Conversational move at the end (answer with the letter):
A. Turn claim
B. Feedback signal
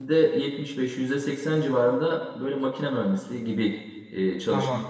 A